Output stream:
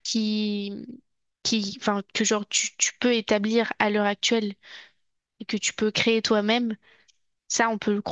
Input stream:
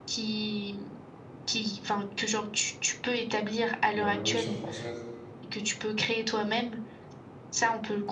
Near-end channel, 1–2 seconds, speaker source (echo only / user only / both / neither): echo only